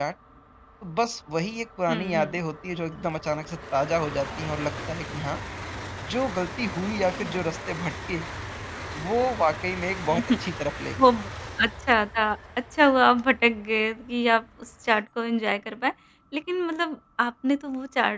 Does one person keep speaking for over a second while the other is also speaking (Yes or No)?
No